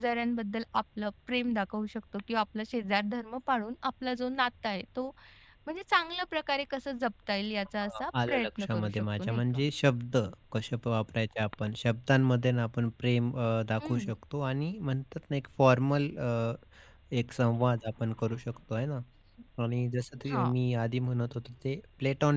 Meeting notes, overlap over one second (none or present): present